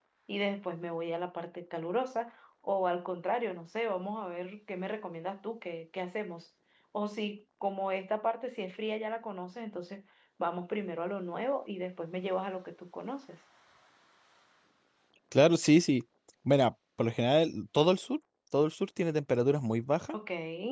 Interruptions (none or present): none